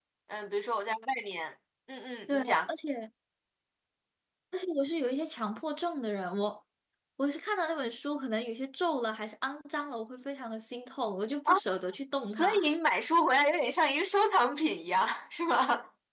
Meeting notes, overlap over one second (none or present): none